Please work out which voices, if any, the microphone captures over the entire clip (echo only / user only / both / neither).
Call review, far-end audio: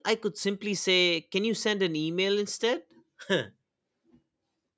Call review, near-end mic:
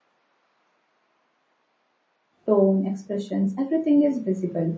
user only